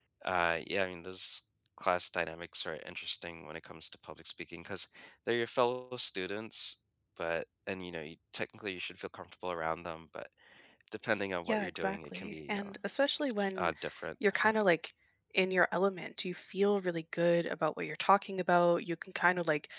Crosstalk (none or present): present